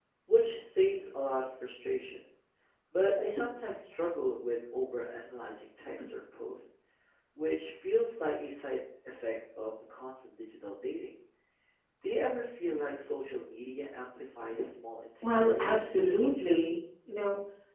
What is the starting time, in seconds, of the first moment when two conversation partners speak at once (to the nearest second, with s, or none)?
15 s